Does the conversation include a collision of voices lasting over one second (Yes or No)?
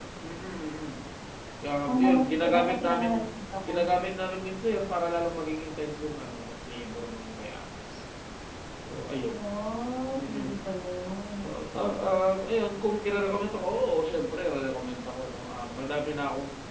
Yes